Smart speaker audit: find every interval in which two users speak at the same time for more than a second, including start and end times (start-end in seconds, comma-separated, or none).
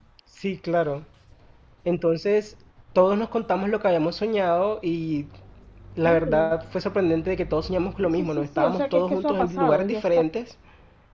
8.0-10.1